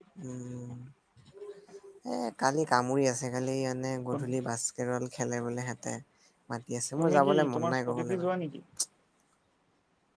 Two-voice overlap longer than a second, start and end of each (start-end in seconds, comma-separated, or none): 7.0-8.3